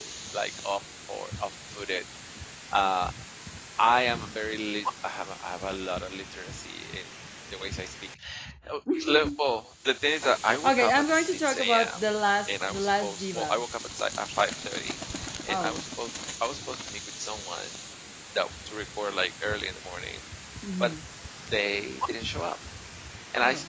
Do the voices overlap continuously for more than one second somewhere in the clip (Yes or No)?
Yes